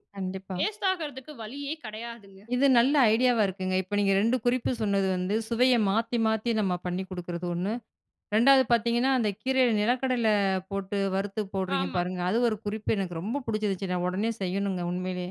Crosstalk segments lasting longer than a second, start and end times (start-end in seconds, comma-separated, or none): none